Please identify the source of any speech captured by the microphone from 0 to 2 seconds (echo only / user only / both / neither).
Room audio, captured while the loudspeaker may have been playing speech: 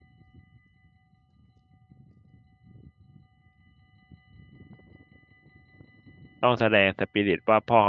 neither